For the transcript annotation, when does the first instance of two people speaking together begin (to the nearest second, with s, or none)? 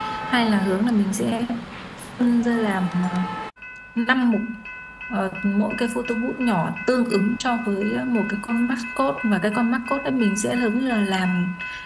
none